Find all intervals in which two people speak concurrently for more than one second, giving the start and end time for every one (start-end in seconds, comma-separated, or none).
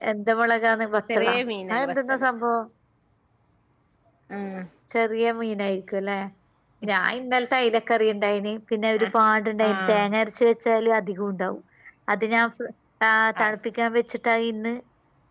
none